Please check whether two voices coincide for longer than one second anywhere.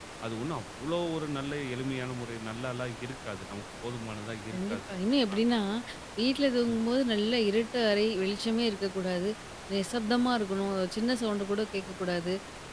No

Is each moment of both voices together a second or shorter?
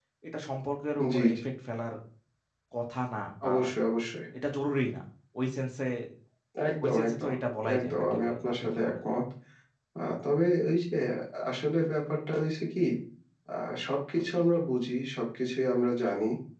No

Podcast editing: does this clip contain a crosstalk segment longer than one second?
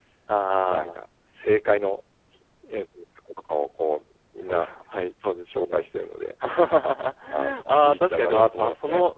Yes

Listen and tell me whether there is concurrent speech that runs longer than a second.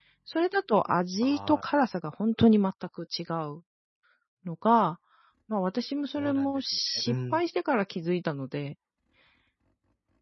Yes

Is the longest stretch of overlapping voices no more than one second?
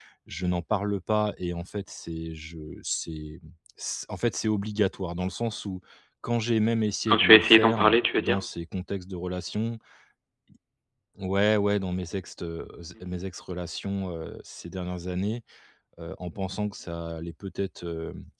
No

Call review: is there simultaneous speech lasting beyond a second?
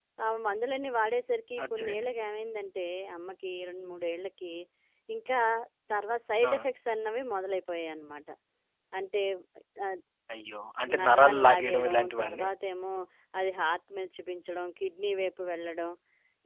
Yes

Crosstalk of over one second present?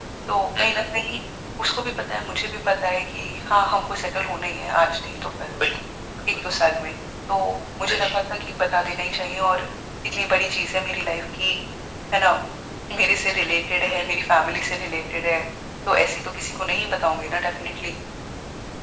No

